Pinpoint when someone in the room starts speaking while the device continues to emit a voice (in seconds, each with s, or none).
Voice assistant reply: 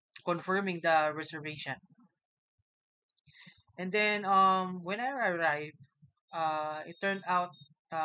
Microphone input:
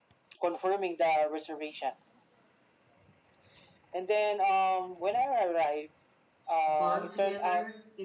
6.7 s